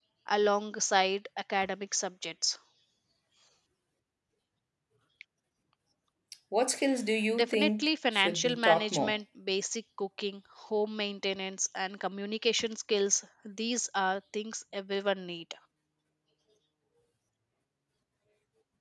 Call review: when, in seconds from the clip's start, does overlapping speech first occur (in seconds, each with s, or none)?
7.3 s